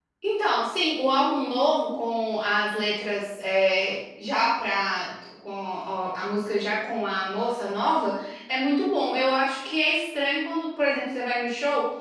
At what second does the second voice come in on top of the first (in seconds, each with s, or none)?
none